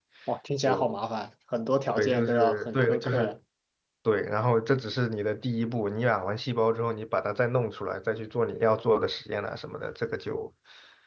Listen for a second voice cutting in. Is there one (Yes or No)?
Yes